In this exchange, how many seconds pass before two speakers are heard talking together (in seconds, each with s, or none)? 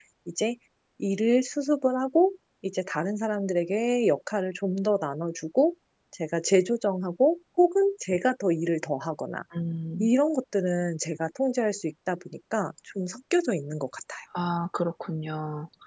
none